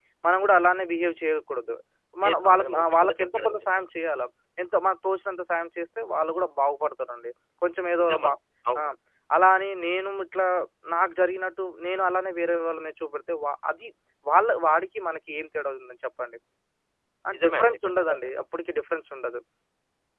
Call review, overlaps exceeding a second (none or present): present